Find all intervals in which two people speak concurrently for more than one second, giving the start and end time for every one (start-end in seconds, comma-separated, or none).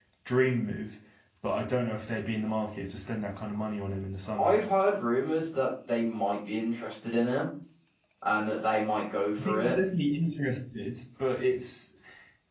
none